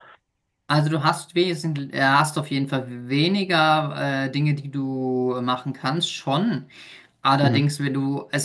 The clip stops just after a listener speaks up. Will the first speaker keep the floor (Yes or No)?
Yes